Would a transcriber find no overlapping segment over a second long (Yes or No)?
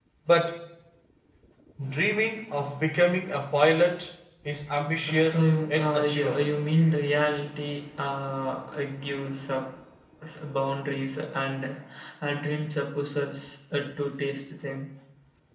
No